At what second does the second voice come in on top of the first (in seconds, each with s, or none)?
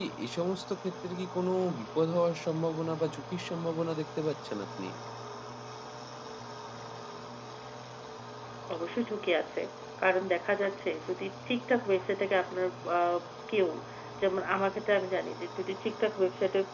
none